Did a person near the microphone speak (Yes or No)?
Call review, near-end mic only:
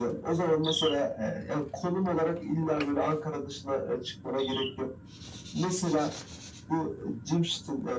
No